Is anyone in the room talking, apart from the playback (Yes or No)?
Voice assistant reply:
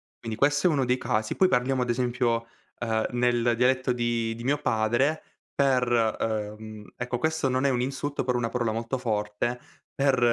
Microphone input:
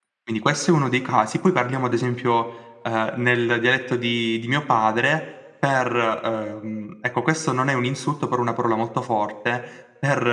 No